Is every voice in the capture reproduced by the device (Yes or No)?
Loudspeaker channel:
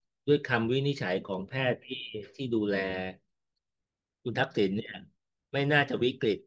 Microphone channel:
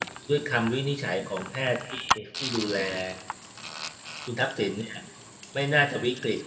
Yes